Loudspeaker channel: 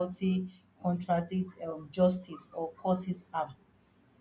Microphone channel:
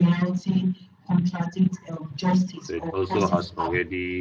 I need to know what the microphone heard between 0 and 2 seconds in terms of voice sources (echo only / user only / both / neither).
echo only